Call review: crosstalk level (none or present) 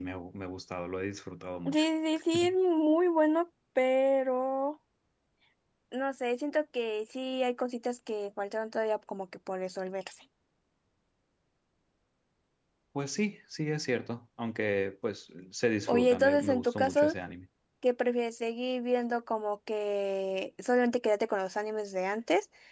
present